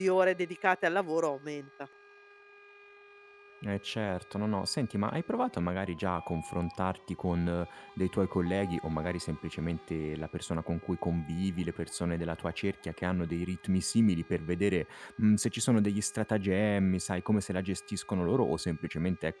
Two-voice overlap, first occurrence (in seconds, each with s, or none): none